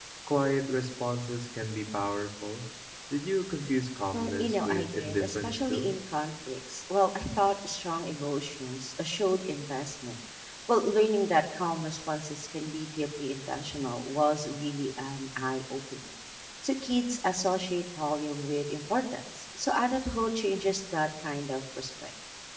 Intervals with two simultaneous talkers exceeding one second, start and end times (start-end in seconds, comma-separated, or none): 4.1-5.9